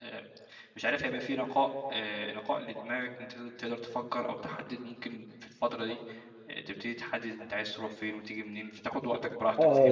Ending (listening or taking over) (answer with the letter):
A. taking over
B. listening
A